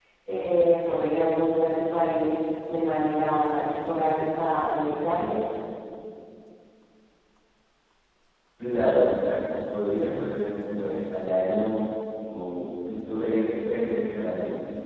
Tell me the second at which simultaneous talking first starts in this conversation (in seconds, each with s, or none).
none